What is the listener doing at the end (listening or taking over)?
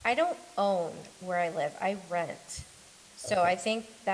listening